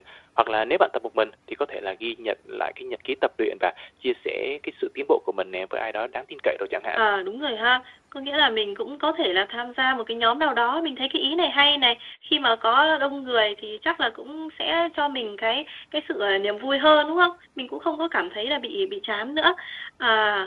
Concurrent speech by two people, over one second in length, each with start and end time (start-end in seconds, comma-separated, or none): none